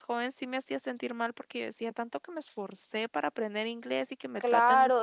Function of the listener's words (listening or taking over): taking over